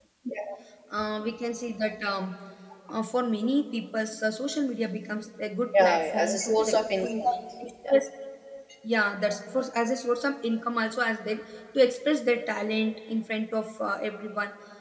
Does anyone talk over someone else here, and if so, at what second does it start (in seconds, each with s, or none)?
5.7 s